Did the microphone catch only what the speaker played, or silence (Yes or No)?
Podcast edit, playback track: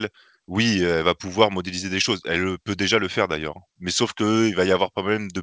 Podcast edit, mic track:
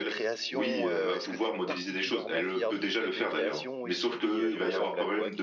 No